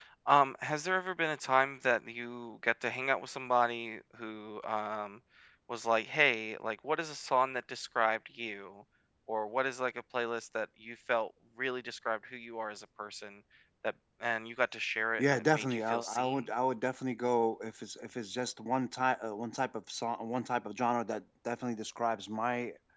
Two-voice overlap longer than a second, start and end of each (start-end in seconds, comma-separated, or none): 15.2-16.4